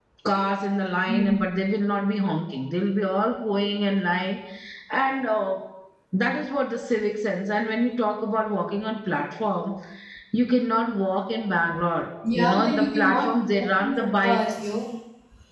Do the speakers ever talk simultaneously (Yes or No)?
Yes